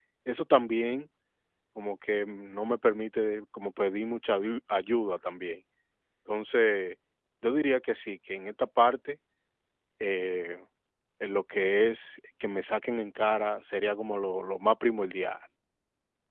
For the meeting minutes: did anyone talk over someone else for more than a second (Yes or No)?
No